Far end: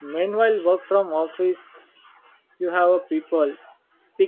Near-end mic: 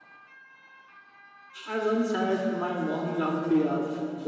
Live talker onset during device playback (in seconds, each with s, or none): 1.6 s